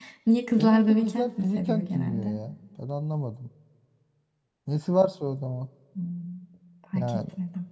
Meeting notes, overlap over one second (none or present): present